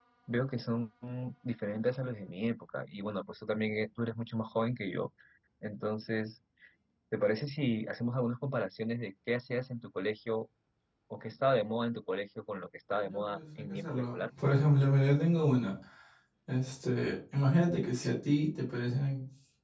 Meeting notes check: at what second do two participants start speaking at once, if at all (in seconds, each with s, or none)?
13.0 s